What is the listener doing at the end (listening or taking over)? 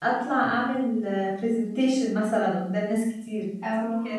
listening